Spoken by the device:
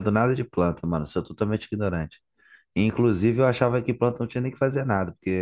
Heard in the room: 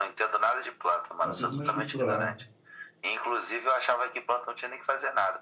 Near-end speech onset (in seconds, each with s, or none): 1.2 s